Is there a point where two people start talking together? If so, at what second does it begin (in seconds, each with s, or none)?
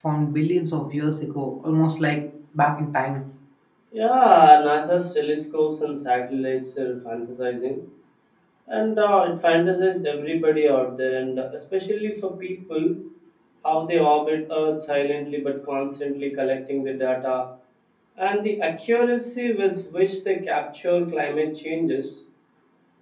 none